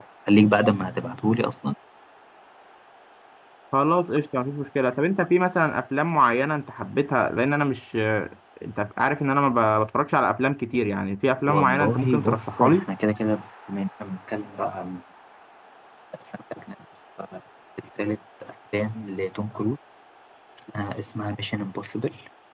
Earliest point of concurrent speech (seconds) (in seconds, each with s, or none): 11.5 s